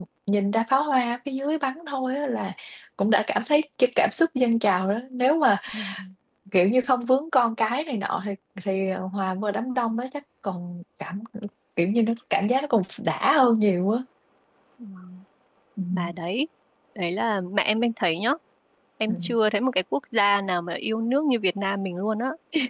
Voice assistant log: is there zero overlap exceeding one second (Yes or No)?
Yes